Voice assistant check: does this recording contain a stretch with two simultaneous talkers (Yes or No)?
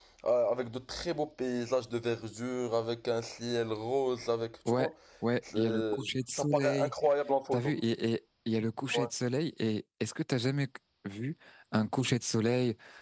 Yes